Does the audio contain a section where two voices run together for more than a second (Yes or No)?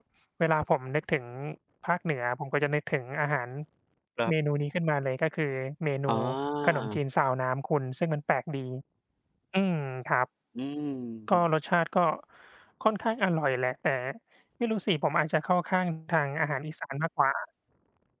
No